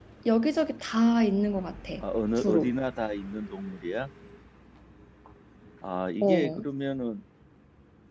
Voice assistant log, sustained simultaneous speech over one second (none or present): none